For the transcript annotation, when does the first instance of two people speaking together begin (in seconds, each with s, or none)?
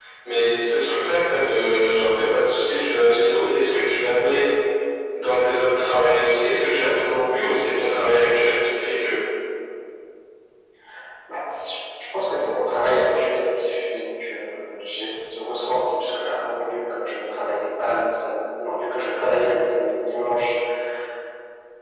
none